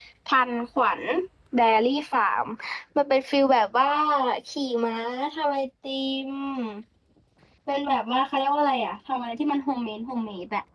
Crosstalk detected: No

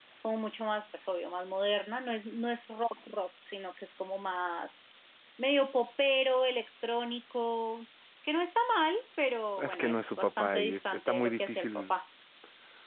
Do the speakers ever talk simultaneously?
Yes, from 9.6 s

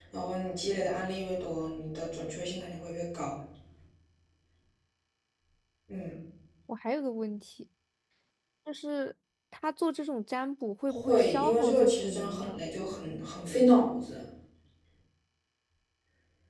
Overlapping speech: Yes, from 10.9 s

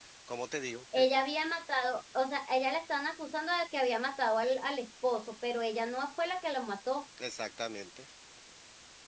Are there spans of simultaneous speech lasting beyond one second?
No

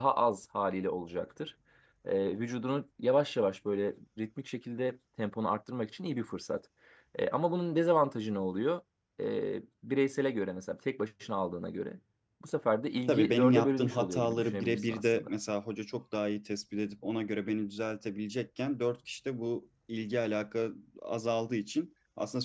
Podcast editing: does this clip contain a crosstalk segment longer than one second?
Yes, from 13.1 s

